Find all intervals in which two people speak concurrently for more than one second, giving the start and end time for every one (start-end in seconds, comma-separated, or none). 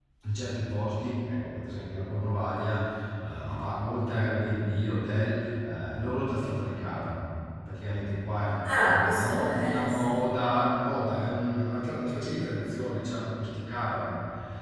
8.6-10.2